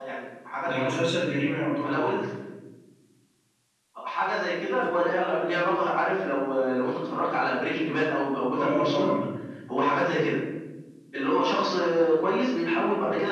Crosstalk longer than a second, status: none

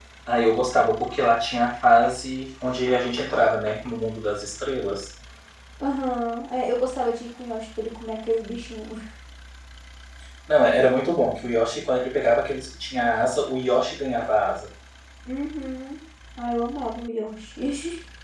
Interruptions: none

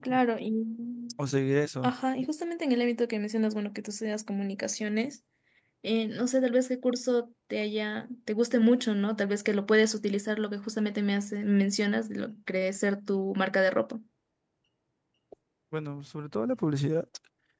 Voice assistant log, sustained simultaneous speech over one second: none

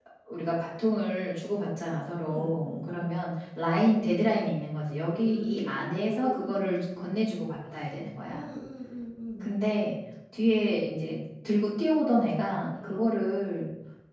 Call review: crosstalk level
present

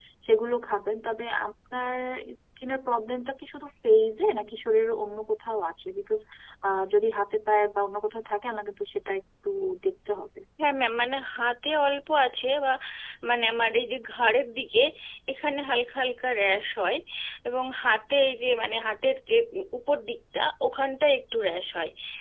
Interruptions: none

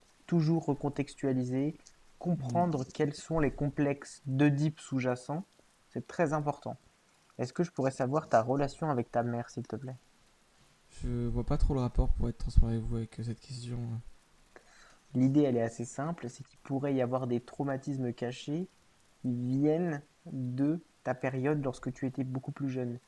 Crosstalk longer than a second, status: none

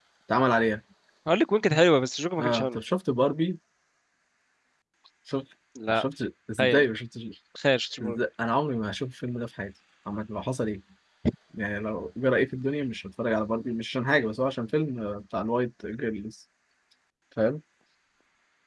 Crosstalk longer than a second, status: none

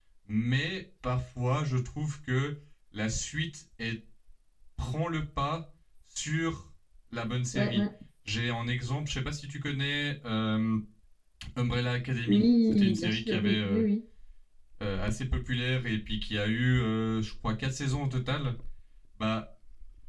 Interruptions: present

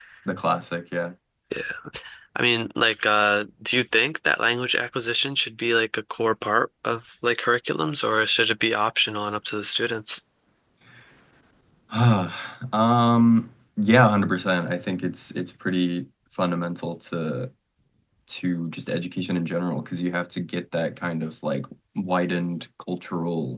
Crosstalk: none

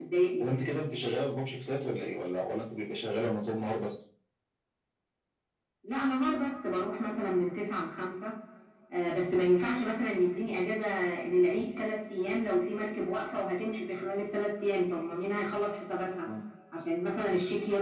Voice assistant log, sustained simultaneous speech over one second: none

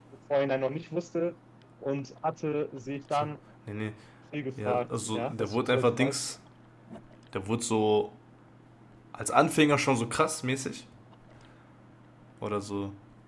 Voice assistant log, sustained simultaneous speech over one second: present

